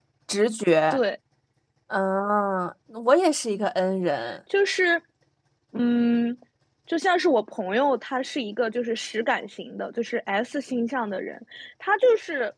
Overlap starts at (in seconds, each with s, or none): none